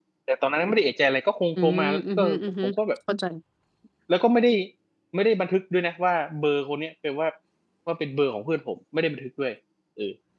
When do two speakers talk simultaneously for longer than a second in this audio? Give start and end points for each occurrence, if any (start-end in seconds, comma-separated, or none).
1.6-2.8